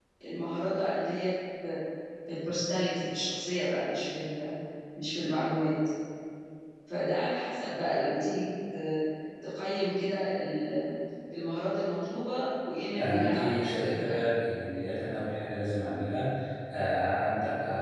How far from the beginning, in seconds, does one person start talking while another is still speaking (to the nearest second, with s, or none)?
13 s